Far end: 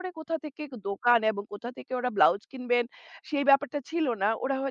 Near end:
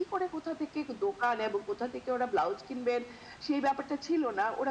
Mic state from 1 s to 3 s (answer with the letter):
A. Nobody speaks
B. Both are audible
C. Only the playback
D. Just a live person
C